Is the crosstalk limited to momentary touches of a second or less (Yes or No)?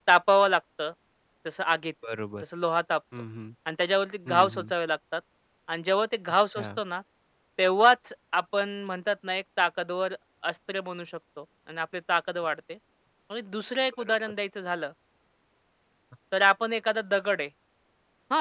Yes